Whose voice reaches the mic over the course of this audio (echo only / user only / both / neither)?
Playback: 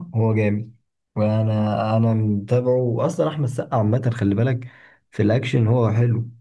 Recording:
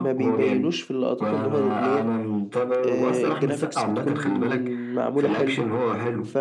both